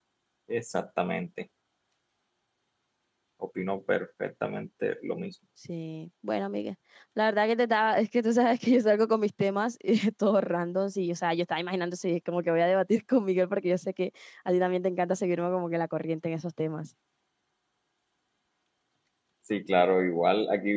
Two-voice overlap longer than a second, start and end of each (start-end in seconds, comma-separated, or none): none